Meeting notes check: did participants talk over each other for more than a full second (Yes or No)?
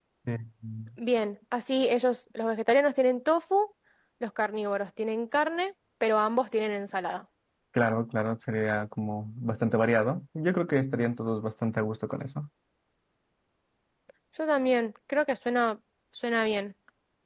No